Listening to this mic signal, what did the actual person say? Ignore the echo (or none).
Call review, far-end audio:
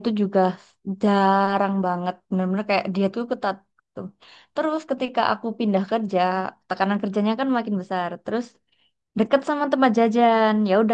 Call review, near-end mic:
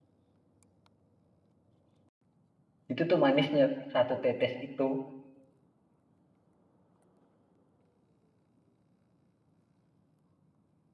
Itu tuh manisnya satu tetes itu